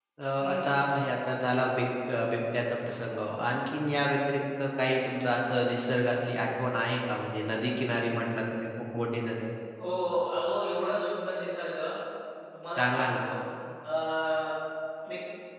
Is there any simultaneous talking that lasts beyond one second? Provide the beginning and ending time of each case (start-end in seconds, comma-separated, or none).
none